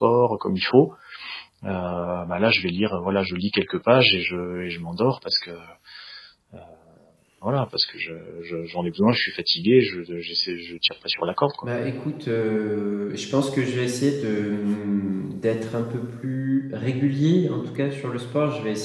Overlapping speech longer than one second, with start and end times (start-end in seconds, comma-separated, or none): none